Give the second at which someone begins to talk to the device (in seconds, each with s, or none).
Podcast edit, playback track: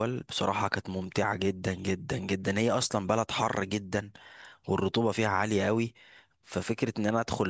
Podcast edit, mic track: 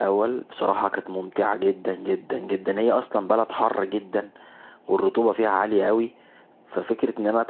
none